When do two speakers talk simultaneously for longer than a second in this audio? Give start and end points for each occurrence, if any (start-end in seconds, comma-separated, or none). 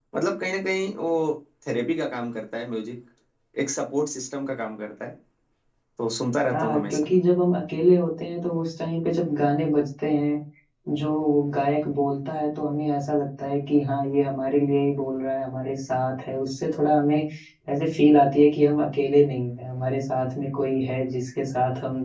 none